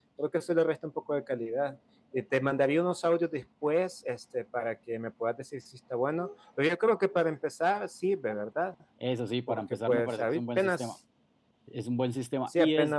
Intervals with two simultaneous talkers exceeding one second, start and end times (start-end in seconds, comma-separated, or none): 9.5-10.9